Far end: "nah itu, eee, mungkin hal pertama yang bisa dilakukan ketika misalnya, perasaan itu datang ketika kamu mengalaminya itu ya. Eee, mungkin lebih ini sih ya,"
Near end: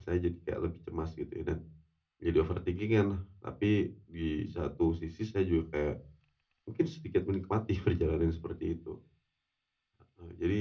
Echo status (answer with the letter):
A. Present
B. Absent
B